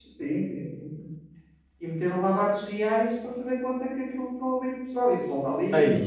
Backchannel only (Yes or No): Yes